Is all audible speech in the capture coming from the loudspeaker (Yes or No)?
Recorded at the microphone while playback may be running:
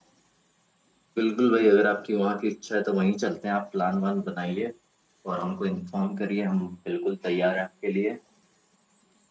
No